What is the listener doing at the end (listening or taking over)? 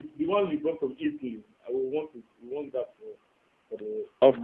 taking over